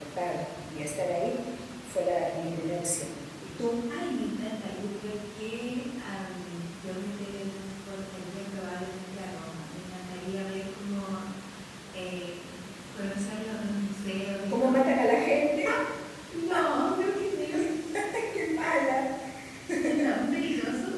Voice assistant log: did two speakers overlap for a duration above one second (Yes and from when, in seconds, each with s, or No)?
No